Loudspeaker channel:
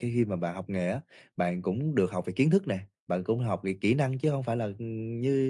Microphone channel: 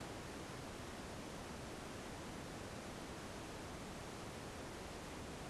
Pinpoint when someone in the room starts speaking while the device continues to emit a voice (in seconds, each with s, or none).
none